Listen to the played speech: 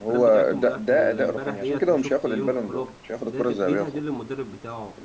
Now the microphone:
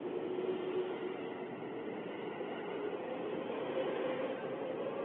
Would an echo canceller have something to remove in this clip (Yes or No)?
No